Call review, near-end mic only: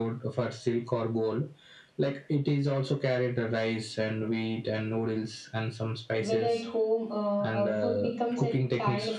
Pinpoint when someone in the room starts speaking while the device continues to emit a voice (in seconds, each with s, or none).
6.2 s